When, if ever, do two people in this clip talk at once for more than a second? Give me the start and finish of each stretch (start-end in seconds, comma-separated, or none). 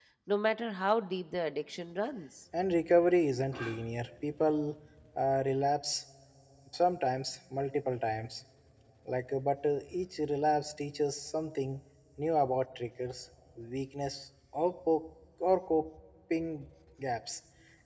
none